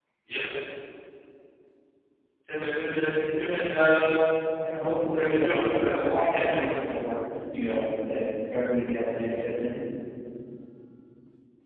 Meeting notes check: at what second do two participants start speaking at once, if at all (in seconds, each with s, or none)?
5.1 s